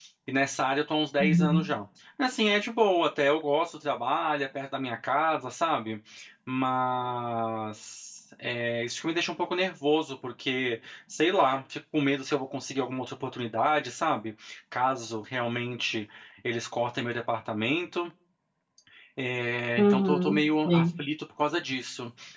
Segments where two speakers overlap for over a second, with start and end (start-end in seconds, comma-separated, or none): 19.8-21.0